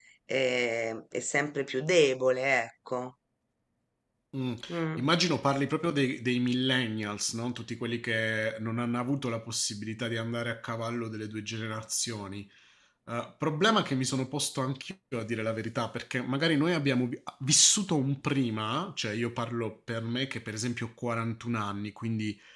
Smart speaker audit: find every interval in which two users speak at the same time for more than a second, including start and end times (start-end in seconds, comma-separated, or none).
none